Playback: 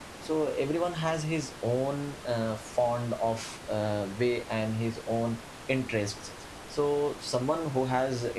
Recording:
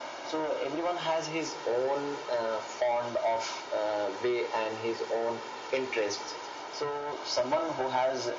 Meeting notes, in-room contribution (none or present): none